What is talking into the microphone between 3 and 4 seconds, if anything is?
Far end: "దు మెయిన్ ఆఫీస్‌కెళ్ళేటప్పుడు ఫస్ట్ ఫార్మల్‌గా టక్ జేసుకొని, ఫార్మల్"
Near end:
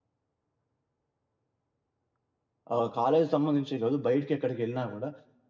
user only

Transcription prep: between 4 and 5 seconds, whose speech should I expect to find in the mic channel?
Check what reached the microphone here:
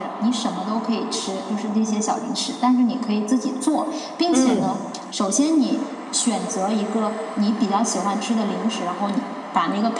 both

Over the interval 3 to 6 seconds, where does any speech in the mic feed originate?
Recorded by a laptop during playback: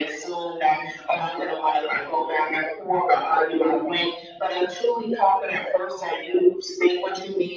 echo only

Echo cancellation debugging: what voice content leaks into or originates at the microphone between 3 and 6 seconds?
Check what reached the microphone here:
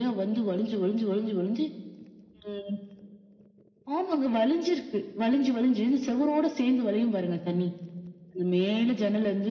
echo only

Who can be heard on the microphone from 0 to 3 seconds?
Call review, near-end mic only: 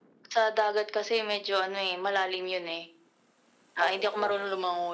echo only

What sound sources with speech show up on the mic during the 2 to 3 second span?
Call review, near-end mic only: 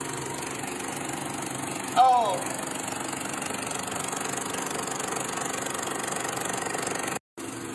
user only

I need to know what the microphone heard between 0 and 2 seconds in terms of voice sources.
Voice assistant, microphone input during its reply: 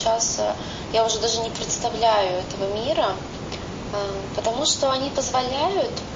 echo only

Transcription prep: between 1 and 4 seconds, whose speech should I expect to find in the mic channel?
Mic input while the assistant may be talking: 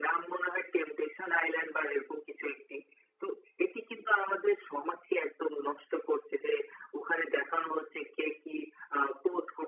echo only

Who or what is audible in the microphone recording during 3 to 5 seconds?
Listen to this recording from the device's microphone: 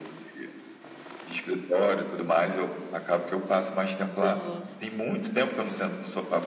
both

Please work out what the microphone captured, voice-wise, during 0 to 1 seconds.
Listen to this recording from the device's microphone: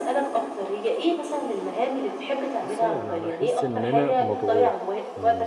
echo only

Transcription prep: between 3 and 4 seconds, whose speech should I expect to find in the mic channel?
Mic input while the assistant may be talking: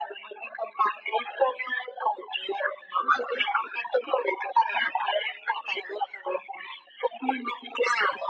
echo only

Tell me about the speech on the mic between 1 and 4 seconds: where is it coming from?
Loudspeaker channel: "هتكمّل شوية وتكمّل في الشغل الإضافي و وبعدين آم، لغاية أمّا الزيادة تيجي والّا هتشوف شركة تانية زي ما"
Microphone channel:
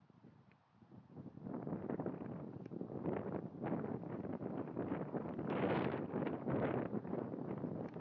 neither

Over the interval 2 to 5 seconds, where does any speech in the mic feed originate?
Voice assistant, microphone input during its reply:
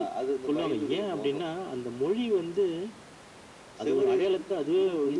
echo only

